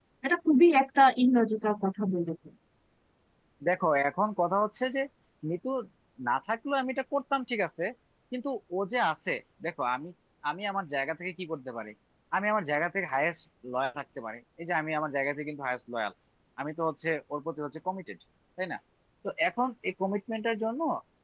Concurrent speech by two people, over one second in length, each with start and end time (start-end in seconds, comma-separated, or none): none